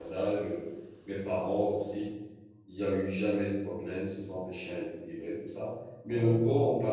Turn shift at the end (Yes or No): No